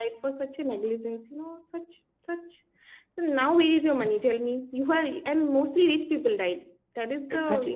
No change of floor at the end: No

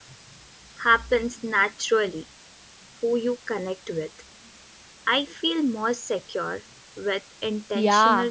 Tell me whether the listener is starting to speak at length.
Yes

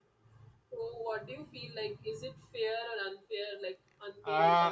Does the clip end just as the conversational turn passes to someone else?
Yes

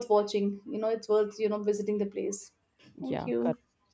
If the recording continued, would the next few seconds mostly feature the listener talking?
Yes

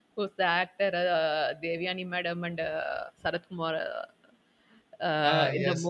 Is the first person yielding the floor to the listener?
Yes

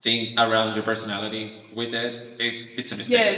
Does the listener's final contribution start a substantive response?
Yes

